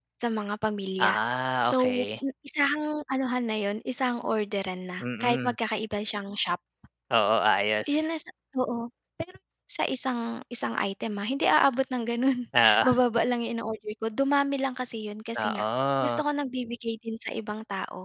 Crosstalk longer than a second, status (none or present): none